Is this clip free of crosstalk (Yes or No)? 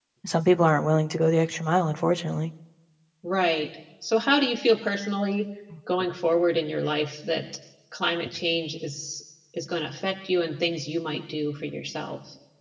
Yes